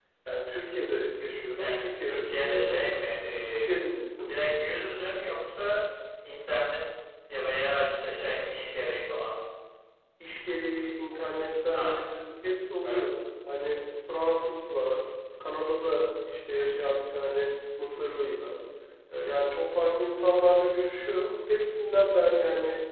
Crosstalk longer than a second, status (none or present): present